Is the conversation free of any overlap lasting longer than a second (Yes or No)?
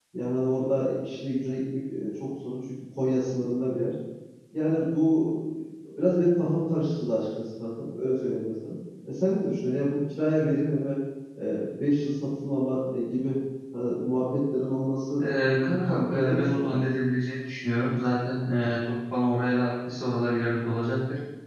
No